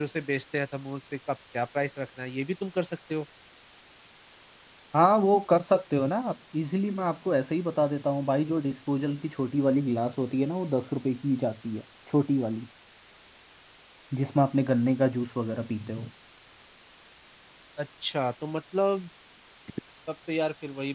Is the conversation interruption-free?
Yes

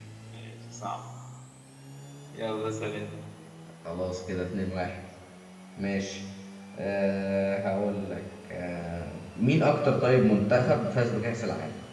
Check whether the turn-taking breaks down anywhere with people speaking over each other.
No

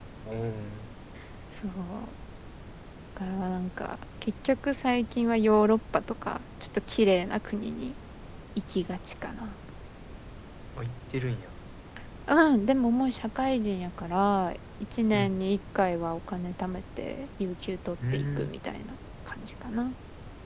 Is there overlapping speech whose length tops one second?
No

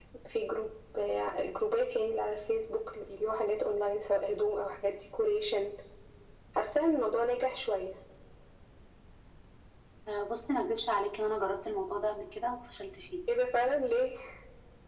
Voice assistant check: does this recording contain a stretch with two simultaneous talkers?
No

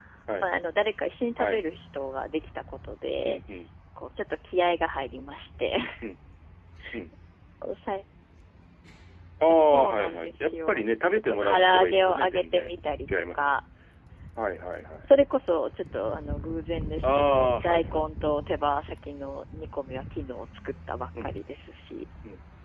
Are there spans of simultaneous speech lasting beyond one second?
Yes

